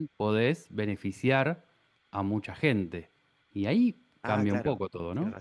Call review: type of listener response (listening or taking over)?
taking over